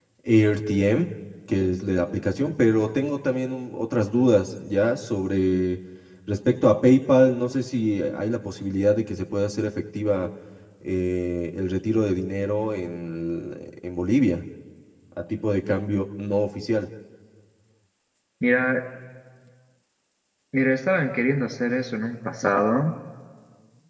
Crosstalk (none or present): none